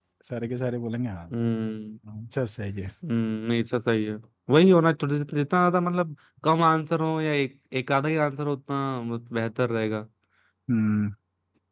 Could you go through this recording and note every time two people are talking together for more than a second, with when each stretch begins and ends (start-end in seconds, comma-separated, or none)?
none